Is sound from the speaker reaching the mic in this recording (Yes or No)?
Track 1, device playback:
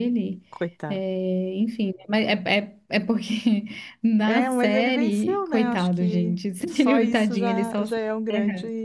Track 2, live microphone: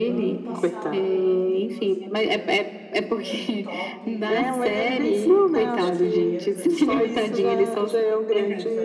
Yes